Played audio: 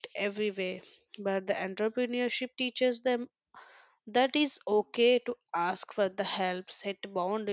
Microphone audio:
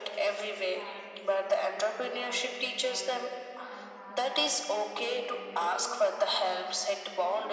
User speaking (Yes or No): Yes